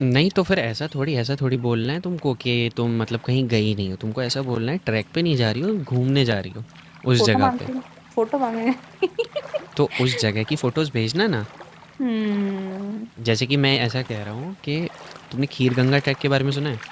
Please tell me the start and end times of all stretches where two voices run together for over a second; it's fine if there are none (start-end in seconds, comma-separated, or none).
none